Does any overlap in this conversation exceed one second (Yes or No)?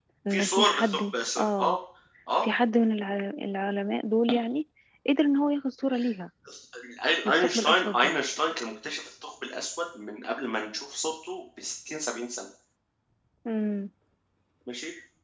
Yes